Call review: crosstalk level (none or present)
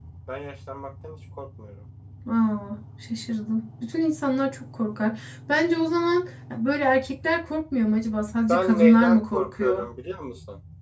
present